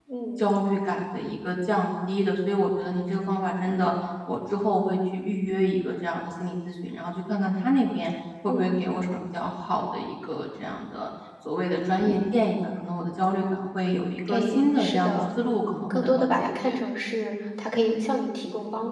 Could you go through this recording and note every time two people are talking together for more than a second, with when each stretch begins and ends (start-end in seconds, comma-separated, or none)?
14.3-16.8